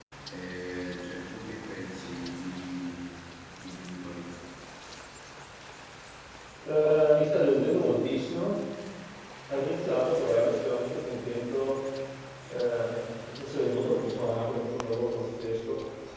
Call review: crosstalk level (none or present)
none